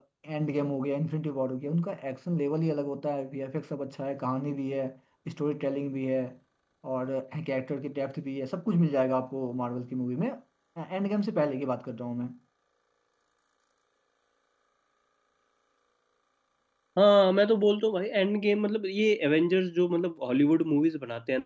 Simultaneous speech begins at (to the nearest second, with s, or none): none